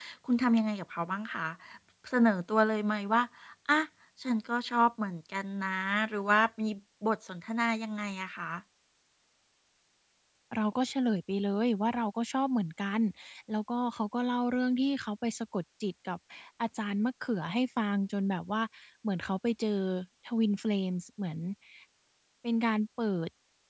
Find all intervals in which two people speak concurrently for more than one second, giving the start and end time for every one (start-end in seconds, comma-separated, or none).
none